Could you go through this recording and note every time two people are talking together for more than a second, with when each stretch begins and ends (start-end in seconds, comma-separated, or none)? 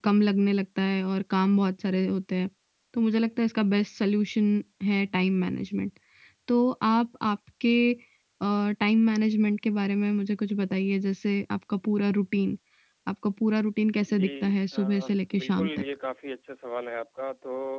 14.2-15.7